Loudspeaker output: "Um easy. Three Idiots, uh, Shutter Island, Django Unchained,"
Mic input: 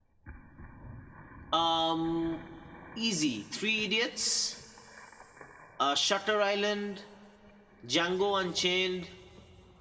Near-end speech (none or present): none